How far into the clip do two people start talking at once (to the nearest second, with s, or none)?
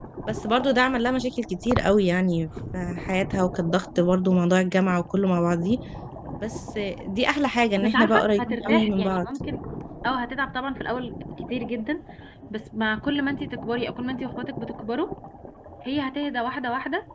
8 s